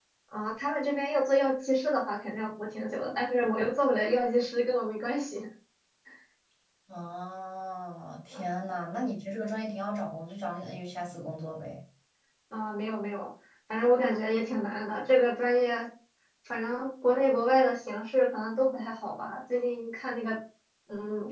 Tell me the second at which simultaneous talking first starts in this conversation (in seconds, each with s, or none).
none